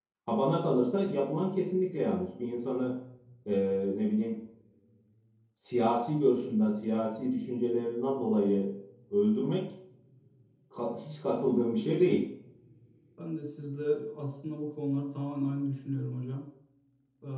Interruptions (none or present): none